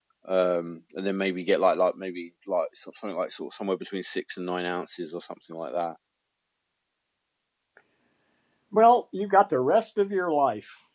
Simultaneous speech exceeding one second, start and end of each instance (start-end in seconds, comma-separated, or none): none